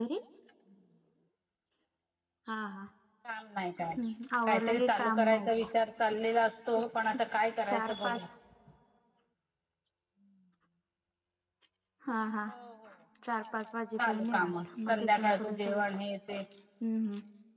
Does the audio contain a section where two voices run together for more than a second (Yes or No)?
Yes